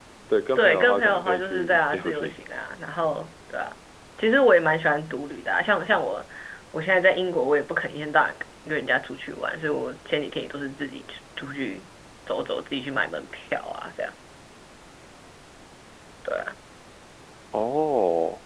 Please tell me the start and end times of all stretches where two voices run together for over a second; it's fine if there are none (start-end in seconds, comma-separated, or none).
0.6-2.4